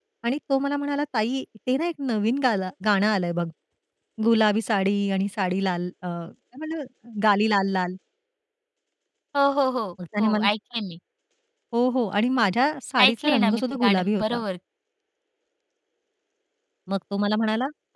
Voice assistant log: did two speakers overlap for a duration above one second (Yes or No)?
Yes